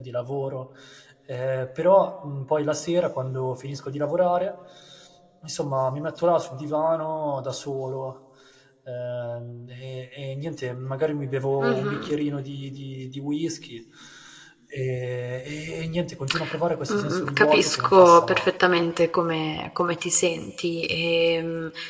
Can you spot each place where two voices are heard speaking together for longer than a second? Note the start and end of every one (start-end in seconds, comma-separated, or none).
16.9-18.5